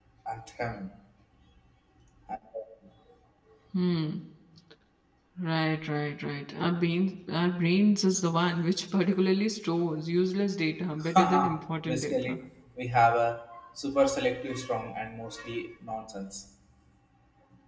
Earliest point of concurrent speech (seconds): 11.0 s

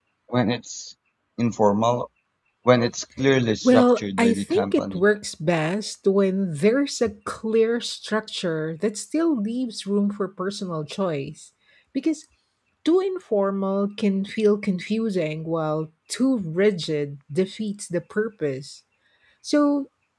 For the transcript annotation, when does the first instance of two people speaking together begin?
3.6 s

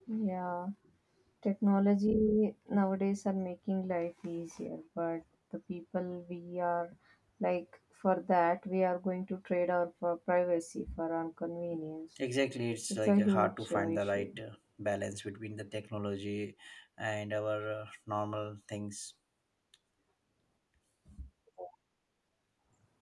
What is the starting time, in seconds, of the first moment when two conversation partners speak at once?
12.9 s

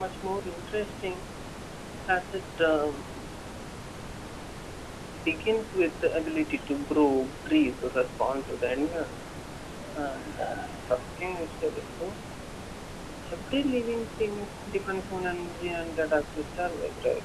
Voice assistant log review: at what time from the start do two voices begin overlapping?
none

